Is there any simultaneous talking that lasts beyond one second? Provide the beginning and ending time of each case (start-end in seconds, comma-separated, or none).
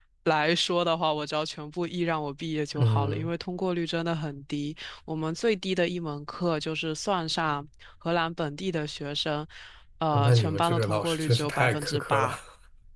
10.1-12.4